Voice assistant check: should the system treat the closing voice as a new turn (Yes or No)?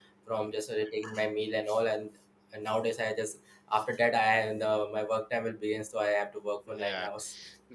Yes